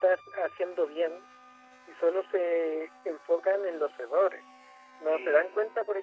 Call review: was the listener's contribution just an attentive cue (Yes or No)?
Yes